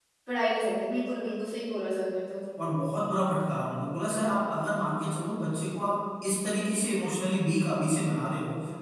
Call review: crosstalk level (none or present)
none